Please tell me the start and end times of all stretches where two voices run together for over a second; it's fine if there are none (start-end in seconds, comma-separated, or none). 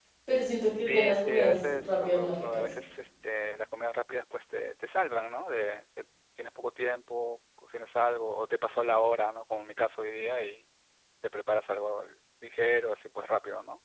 0.8-2.6